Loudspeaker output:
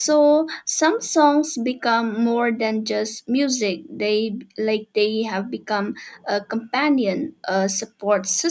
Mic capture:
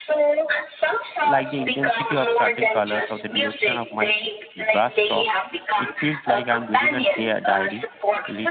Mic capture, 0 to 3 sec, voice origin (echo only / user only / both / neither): both